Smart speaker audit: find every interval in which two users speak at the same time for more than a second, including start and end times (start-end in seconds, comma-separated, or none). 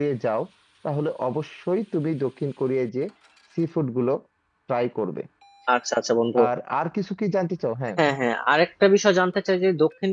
none